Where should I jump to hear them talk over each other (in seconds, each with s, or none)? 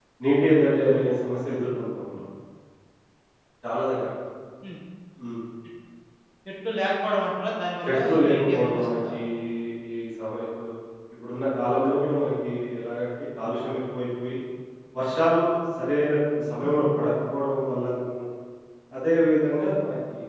7.8 s